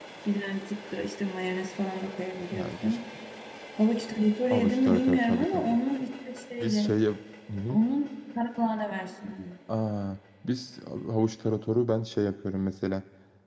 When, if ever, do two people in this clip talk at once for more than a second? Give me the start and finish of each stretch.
4.5-5.8

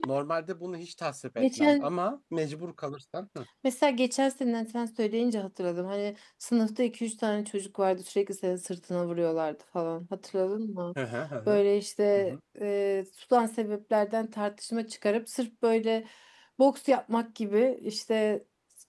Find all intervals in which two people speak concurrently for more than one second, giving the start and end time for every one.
none

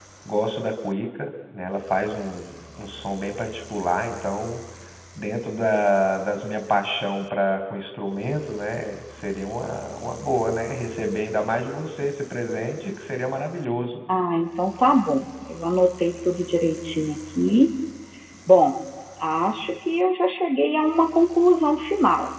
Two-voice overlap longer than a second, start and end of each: none

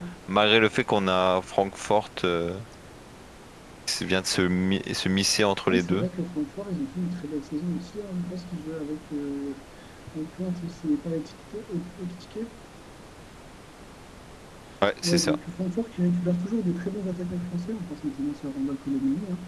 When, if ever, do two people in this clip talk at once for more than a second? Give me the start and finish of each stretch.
none

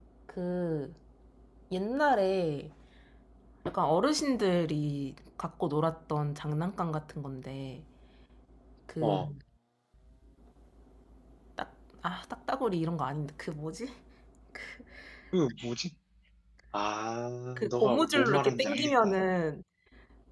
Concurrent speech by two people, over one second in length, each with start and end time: 17.6-19.2

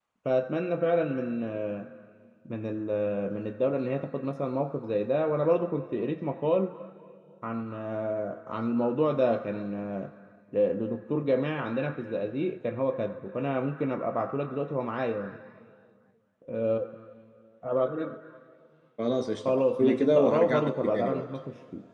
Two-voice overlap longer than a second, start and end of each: 19.4-21.2

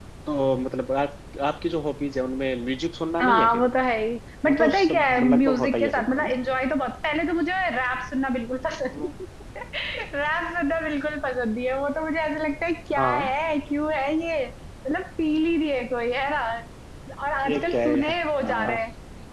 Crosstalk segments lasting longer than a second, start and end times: 4.5-6.3, 17.4-18.8

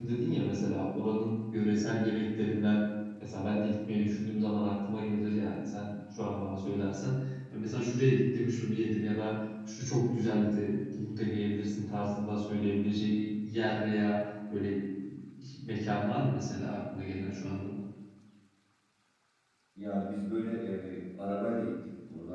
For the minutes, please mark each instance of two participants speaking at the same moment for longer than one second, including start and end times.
none

